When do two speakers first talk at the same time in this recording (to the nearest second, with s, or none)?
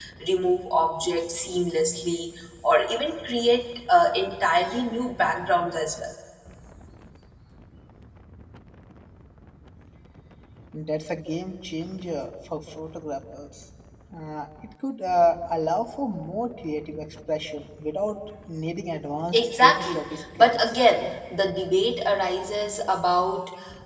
19 s